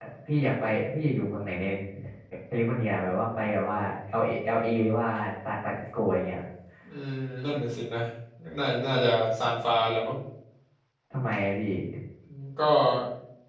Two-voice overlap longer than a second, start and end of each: none

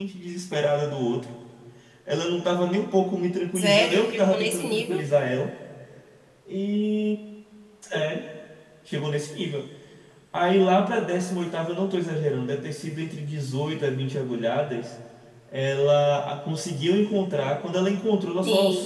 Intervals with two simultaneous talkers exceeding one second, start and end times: 3.5-5.0

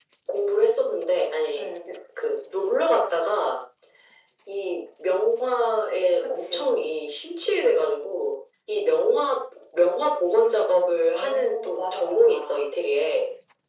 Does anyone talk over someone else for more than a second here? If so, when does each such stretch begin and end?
11.1-12.6

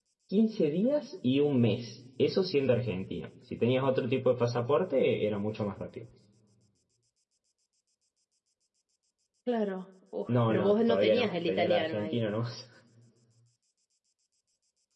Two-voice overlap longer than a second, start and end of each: 10.3-12.2

